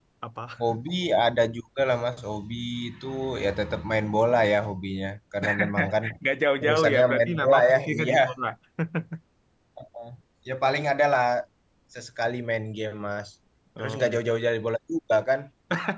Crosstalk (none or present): present